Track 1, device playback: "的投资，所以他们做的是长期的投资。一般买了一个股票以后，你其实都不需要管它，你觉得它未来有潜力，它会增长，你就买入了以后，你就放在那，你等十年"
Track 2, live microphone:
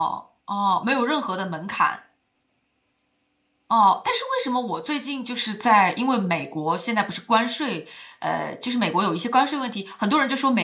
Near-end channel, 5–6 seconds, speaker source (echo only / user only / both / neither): user only